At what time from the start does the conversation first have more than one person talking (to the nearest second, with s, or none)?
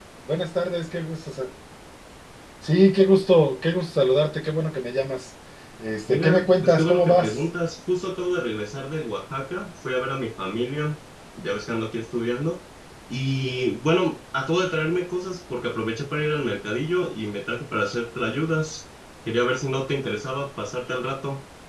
6 s